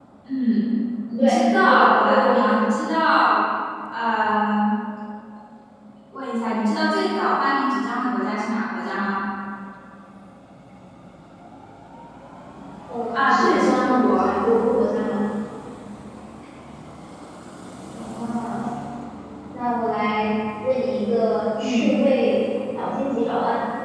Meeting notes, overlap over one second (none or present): present